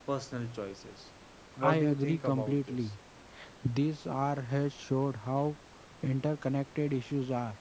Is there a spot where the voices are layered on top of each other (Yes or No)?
Yes